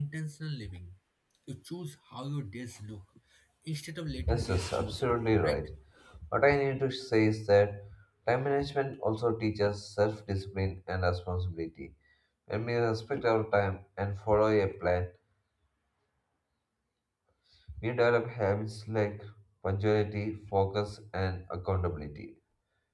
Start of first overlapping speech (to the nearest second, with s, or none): 4 s